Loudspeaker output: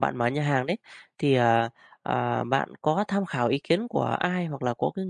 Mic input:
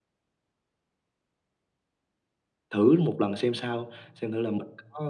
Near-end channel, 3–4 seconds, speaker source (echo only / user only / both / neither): user only